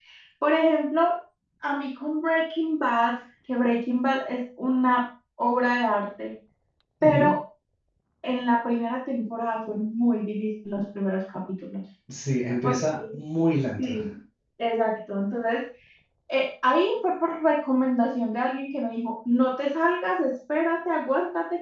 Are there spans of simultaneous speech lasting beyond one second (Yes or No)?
No